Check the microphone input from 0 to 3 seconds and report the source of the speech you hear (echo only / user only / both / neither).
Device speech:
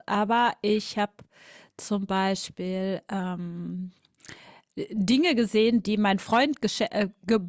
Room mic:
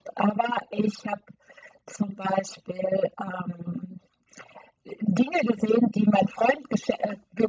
echo only